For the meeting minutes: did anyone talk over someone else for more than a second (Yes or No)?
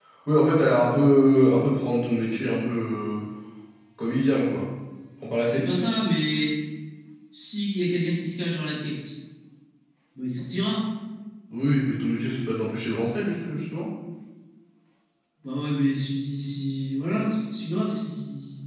No